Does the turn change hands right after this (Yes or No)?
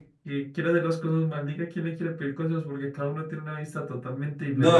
Yes